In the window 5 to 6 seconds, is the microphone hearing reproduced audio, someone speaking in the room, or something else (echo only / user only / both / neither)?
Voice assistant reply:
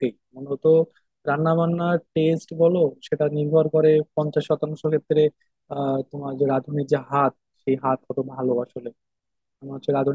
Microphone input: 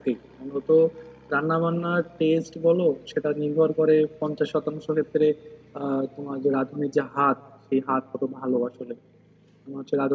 echo only